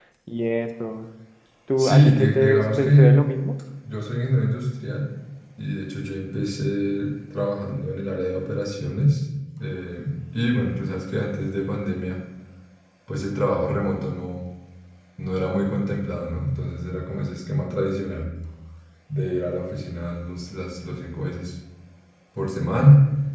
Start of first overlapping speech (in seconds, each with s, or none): 1.8 s